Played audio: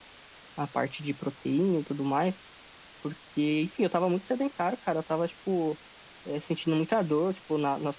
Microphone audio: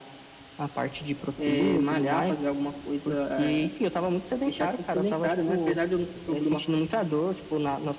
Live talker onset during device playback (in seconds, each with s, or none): 1.4 s